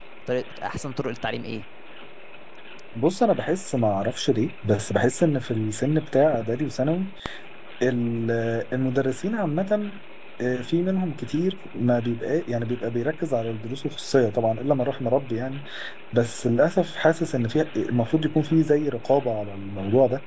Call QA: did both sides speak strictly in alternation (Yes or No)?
Yes